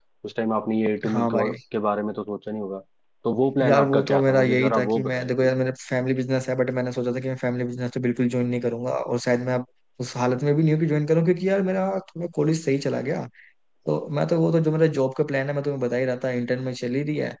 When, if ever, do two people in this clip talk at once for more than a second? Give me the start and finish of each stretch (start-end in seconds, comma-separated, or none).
3.6-5.5